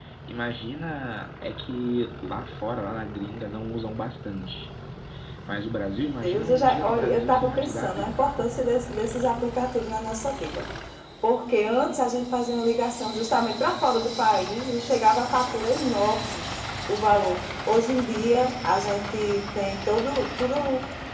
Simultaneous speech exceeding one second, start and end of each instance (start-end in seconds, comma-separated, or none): 6.2-8.1